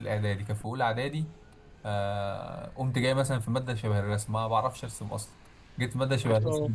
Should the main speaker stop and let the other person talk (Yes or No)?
No